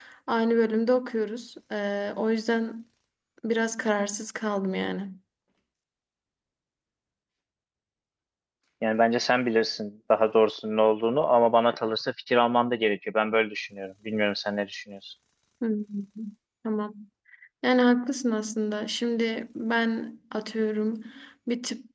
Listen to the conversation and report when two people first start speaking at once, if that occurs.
none

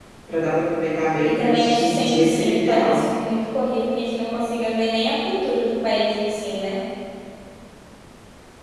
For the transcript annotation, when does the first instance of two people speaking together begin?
1.2 s

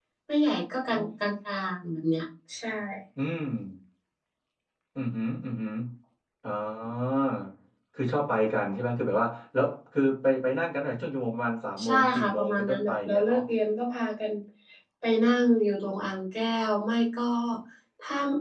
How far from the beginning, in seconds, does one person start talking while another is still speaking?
11.8 s

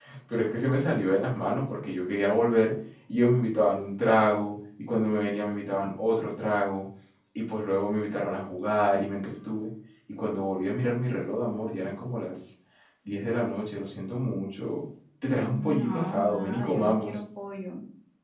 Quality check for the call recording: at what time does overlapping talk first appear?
15.4 s

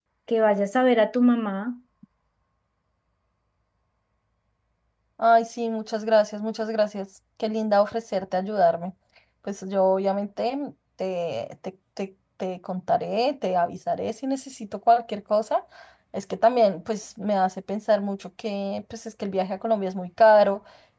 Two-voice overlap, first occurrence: none

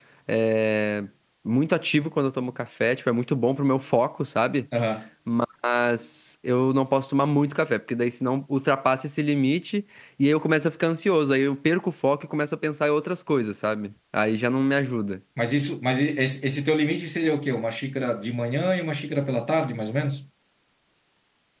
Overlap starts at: none

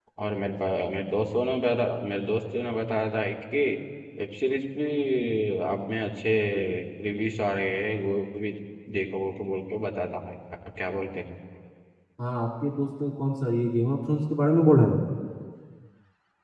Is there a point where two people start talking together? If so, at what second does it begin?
none

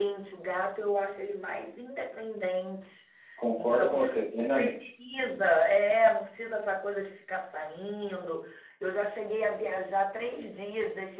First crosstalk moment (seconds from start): 3.5 s

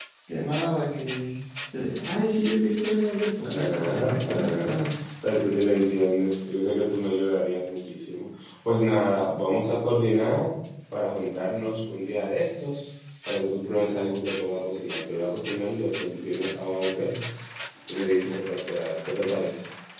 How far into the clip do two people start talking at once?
3.4 s

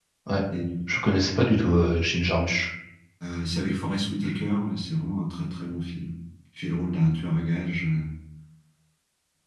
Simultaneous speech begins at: none

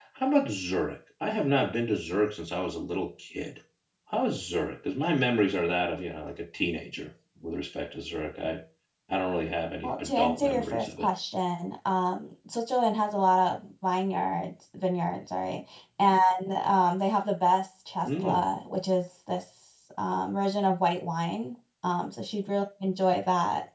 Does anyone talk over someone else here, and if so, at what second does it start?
9.8 s

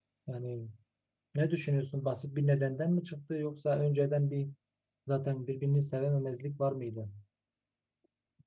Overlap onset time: none

